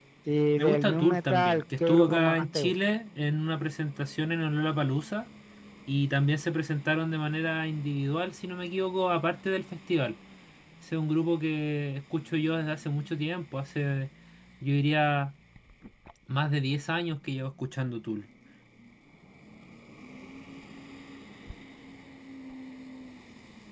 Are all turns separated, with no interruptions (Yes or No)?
No